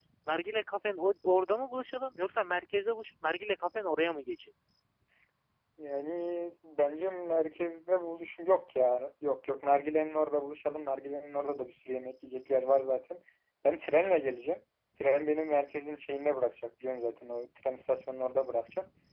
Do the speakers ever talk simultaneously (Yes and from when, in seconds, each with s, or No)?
No